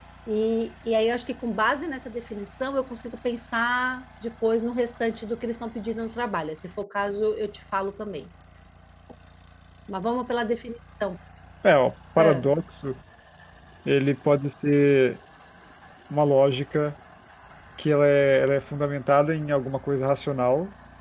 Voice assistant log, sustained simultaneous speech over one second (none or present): none